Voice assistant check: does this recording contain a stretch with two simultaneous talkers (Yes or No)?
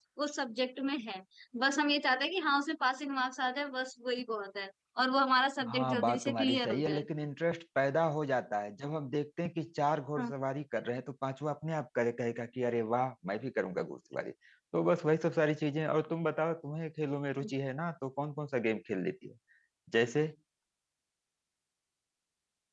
Yes